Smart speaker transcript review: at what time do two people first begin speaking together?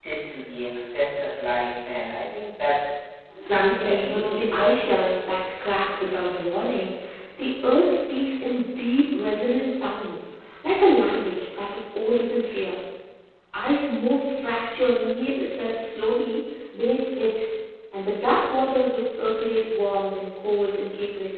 3.4 s

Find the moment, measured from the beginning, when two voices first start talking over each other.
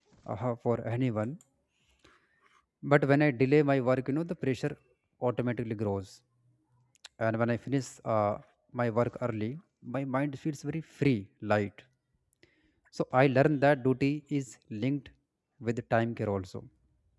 none

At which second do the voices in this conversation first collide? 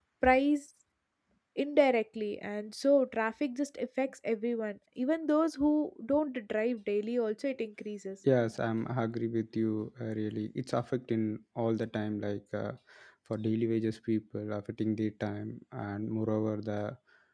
none

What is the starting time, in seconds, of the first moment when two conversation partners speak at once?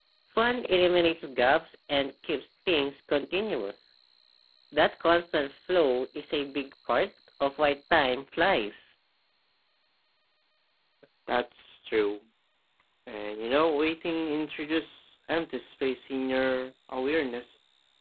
none

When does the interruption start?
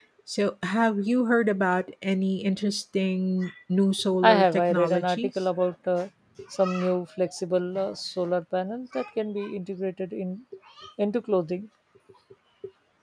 4.2 s

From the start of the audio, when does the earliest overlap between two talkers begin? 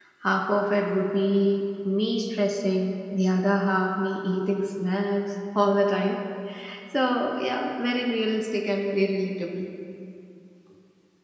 none

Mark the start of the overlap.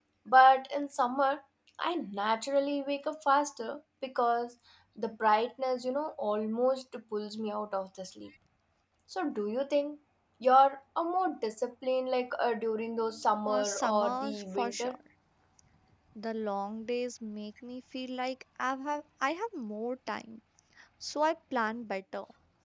13.4 s

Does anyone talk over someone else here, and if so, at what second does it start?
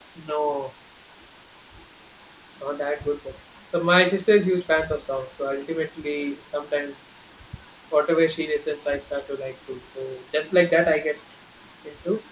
none

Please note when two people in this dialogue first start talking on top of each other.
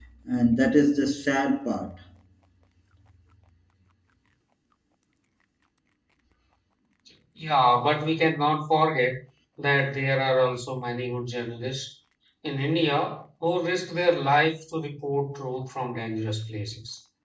none

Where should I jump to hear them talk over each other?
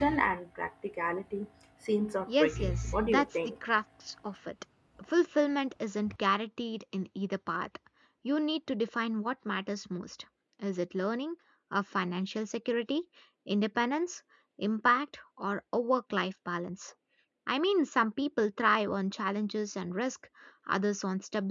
2.3 s

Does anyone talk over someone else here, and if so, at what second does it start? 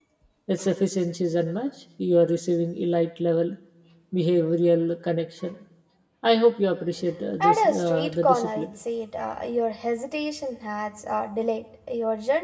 7.4 s

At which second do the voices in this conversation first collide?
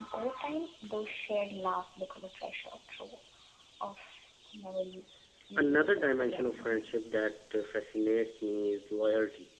5.6 s

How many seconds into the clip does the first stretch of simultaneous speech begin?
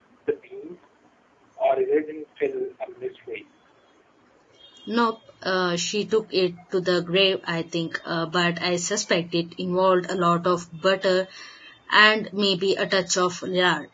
none

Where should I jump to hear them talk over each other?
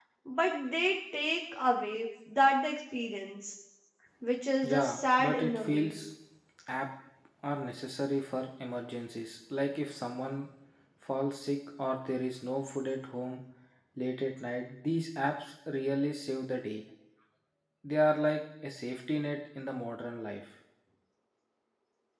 4.6 s

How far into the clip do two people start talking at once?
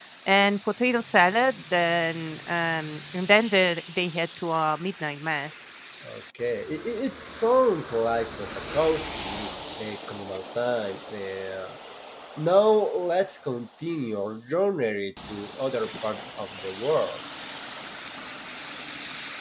none

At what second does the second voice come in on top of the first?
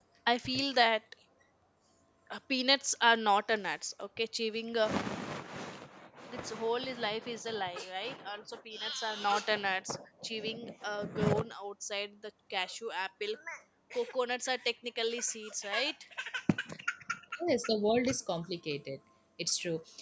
none

